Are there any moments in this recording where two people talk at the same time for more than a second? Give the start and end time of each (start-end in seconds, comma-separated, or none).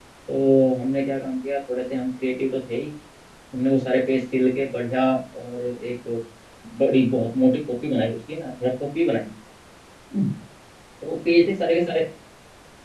none